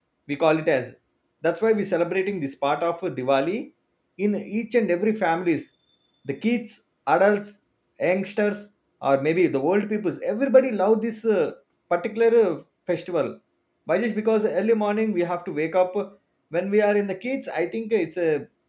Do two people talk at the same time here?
No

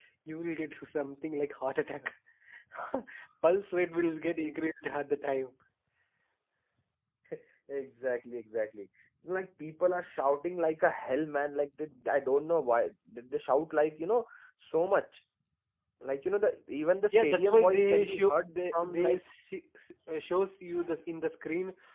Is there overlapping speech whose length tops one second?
Yes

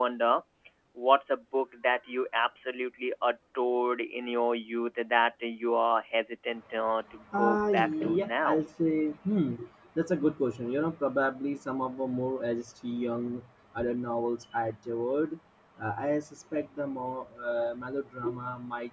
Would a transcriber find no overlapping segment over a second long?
No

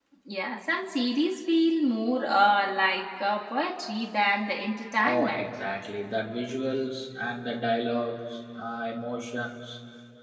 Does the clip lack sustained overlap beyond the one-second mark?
Yes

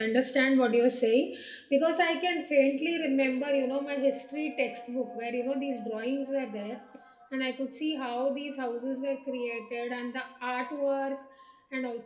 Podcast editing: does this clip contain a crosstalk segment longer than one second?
No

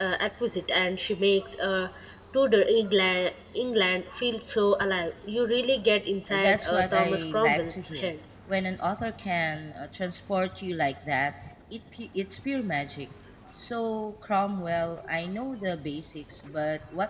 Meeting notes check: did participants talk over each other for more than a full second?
Yes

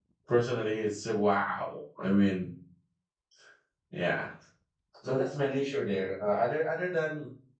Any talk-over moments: No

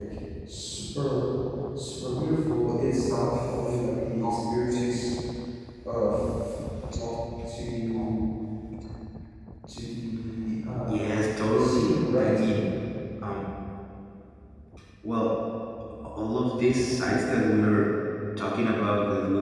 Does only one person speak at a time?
No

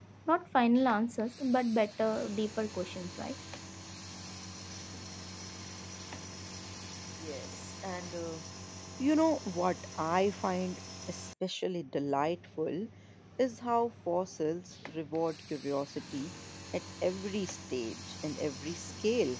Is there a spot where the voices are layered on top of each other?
No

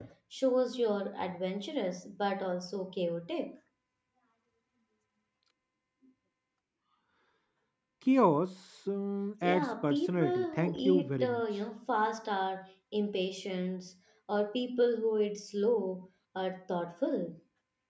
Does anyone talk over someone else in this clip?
Yes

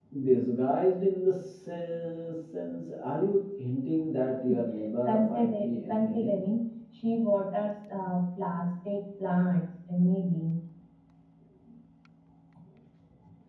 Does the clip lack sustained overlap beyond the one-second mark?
No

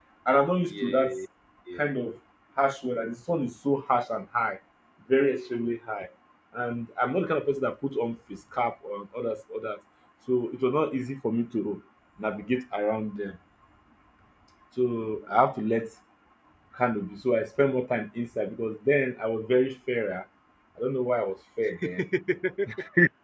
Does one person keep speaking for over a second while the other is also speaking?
No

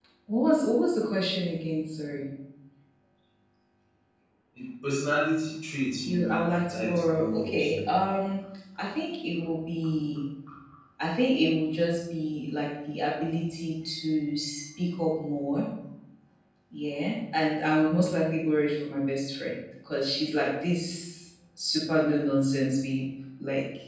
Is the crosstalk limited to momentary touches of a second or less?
No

